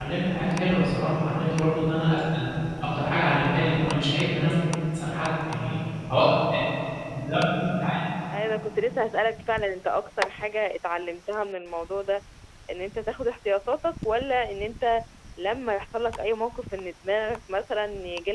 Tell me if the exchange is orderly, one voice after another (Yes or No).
Yes